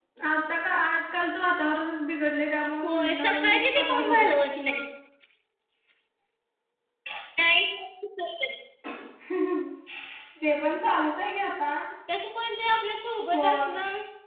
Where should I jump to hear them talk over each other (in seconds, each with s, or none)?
2.8 s